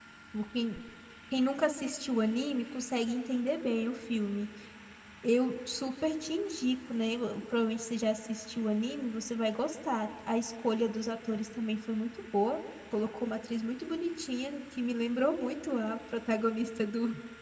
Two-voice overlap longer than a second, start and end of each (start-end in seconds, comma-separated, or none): none